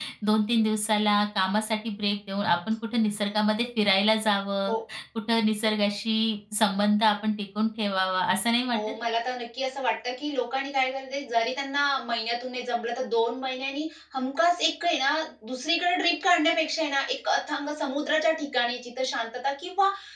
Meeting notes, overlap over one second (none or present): none